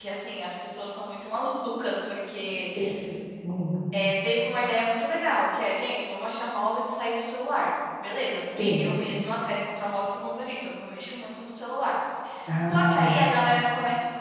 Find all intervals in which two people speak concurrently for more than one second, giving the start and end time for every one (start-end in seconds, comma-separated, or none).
none